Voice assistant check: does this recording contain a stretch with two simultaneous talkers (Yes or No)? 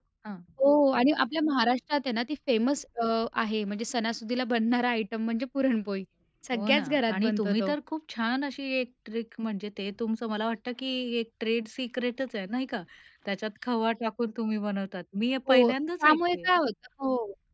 Yes